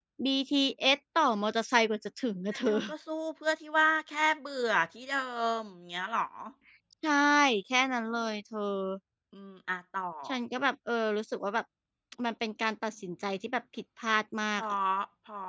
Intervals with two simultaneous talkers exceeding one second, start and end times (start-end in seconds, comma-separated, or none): none